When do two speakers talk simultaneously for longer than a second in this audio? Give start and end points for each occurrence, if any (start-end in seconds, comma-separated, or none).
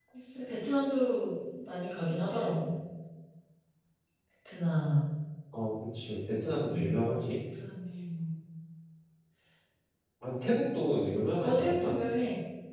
none